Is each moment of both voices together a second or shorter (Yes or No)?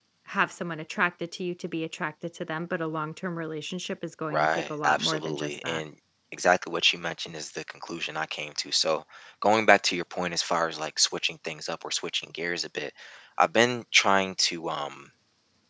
No